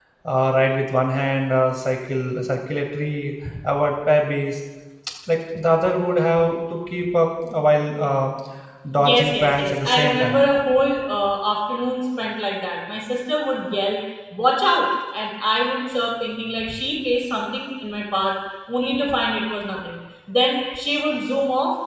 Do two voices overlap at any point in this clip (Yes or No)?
Yes